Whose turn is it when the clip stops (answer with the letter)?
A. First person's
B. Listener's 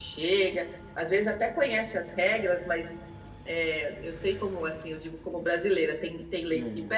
A